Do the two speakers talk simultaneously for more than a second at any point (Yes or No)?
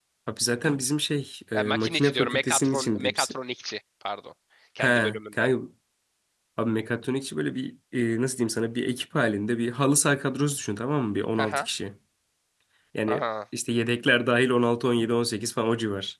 Yes